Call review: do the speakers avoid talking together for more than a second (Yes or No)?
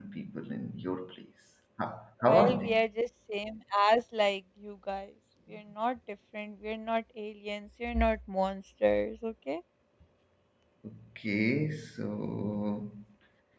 Yes